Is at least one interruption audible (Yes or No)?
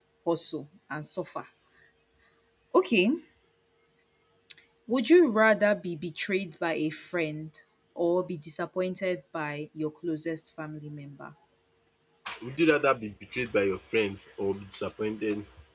No